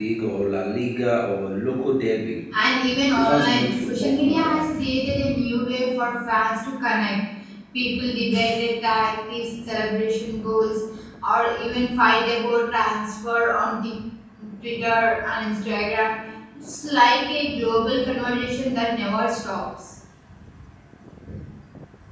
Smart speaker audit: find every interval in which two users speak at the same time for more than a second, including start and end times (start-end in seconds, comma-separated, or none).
3.2-4.7